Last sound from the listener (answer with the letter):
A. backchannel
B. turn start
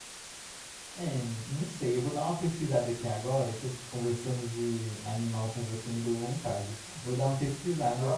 A